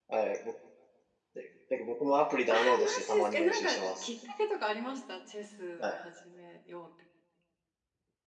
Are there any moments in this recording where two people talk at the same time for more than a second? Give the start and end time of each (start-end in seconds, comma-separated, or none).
2.5-4.1